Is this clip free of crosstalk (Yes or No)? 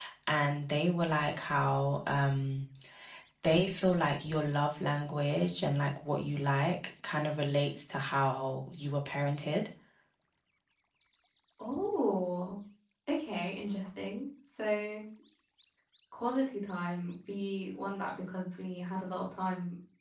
Yes